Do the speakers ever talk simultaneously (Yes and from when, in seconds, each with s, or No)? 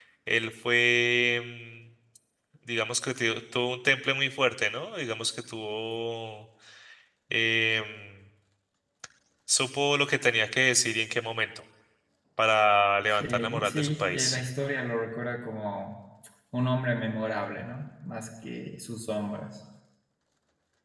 Yes, from 13.1 s